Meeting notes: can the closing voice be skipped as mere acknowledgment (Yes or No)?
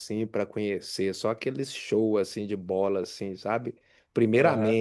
Yes